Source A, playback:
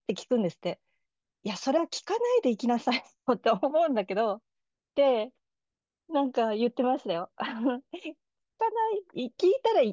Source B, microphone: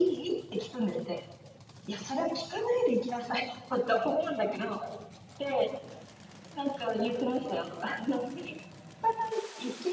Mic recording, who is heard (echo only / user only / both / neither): echo only